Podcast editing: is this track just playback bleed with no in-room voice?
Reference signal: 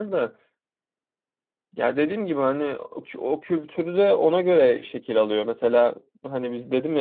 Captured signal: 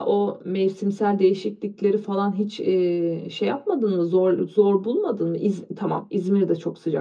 No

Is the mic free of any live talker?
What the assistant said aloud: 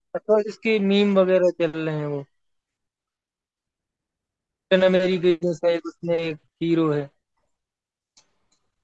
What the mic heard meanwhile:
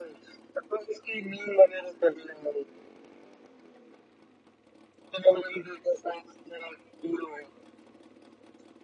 Yes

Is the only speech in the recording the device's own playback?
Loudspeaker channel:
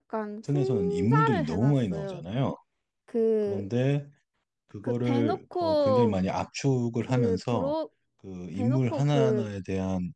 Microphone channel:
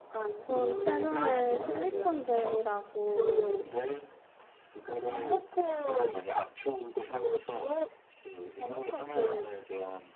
No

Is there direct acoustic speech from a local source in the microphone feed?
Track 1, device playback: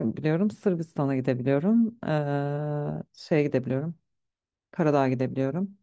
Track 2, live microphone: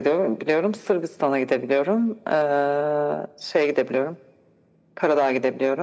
No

